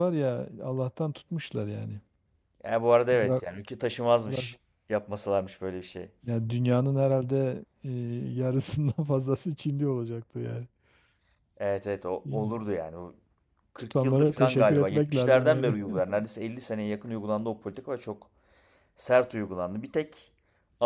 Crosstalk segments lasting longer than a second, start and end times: 14.0-15.7

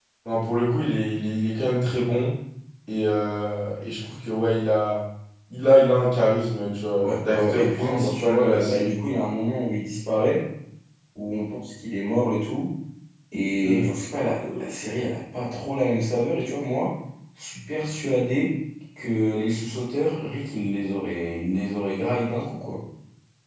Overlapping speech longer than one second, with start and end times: 7.0-9.0

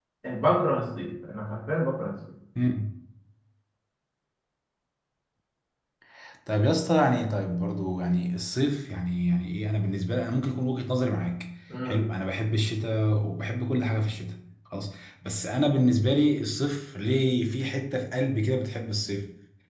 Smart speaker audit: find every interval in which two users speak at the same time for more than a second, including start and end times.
none

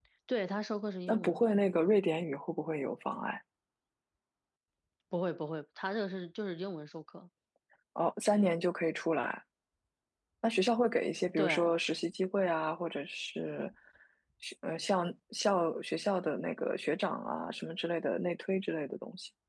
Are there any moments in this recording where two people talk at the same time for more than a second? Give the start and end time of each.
none

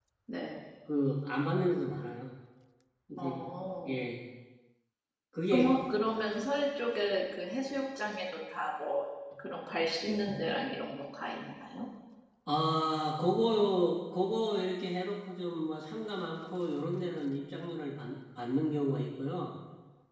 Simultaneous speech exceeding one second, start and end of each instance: none

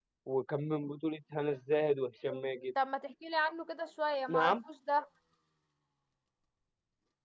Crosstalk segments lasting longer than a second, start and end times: none

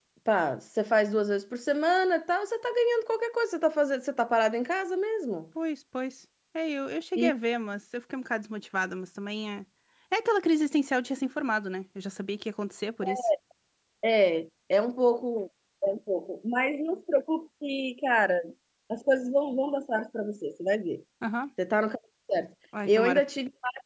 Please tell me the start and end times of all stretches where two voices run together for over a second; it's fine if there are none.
none

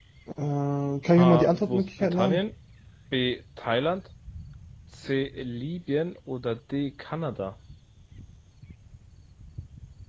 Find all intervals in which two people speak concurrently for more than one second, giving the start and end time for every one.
1.1-2.4

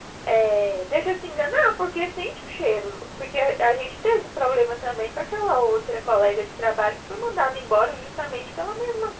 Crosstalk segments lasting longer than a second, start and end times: none

